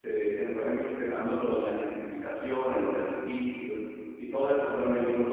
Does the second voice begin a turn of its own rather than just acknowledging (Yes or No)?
No